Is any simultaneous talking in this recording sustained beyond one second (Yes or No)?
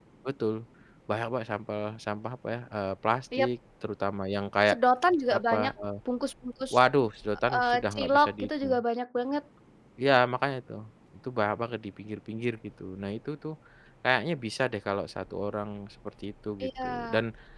Yes